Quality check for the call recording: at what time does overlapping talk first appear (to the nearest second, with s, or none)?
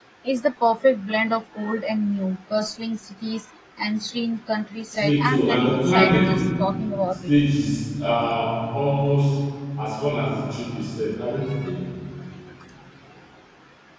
5 s